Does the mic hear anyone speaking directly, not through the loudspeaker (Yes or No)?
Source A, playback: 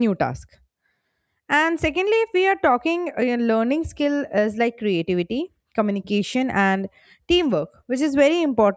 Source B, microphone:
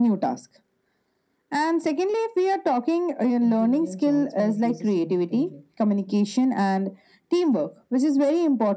Yes